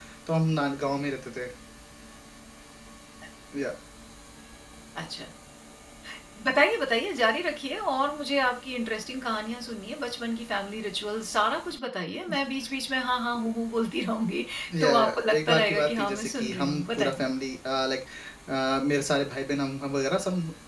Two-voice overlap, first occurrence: 14.8 s

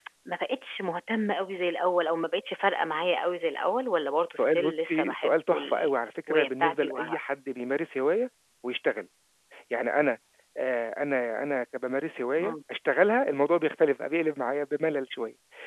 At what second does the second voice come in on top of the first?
4.4 s

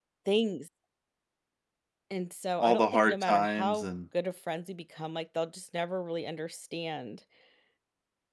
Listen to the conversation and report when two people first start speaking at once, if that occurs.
2.6 s

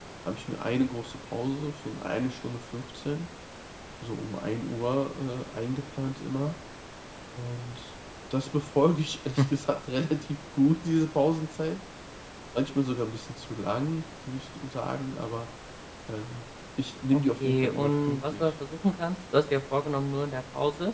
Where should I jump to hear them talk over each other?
17.1 s

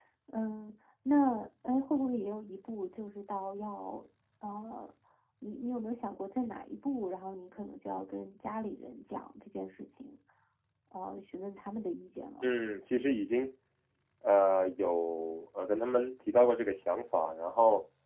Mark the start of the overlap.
none

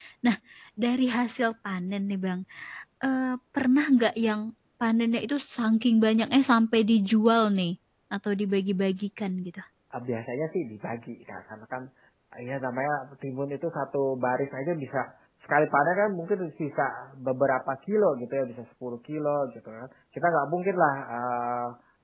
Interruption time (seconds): none

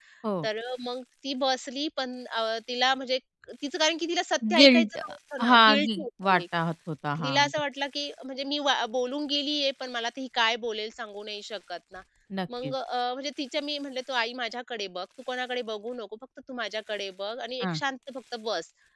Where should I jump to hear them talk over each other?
4.6 s

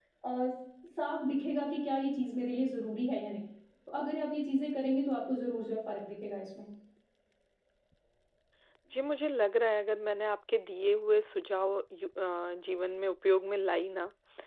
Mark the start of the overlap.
none

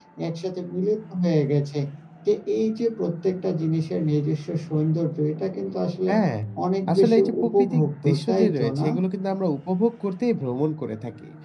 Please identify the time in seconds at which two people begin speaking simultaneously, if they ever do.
6.9 s

